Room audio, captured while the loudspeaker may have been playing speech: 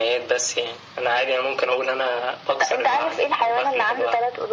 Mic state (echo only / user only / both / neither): echo only